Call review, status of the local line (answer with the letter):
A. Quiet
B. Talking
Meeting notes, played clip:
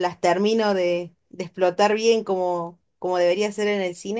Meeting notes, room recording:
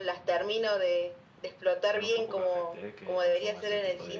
B